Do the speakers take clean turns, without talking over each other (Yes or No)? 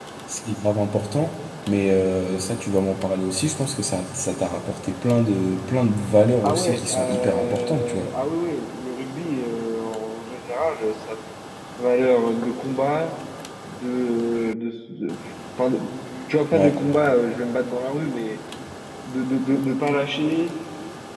No